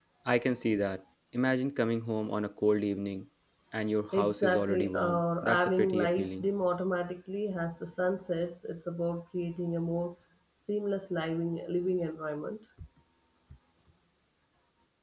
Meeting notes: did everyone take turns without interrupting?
No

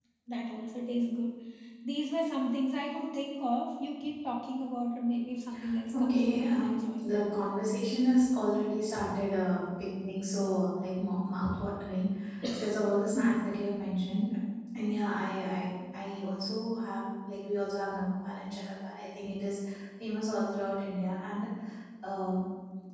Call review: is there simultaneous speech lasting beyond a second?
Yes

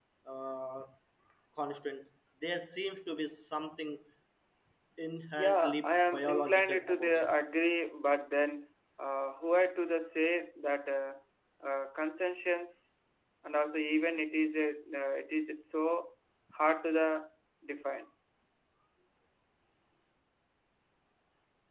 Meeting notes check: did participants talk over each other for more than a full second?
Yes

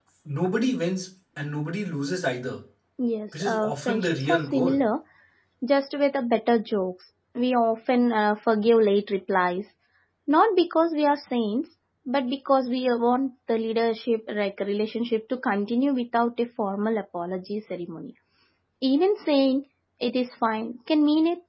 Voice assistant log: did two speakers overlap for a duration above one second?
Yes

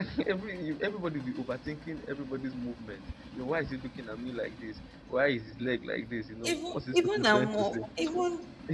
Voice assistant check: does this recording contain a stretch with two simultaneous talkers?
Yes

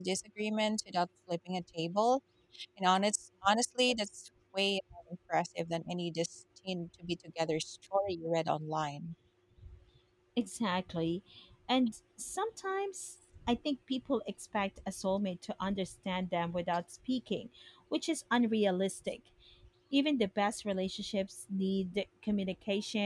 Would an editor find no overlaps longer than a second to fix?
Yes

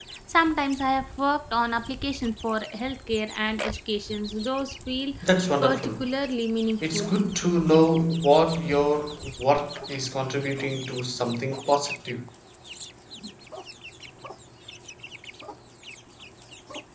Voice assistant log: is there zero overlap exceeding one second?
Yes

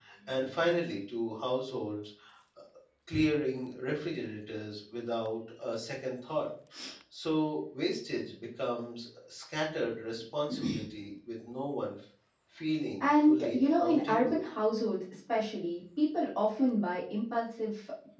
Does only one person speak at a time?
No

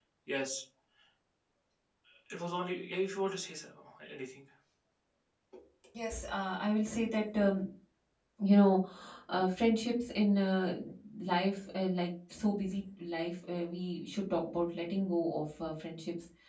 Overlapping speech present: No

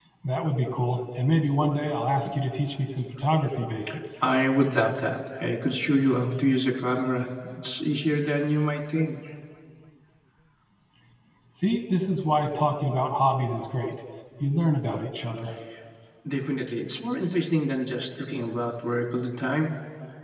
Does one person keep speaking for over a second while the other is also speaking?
No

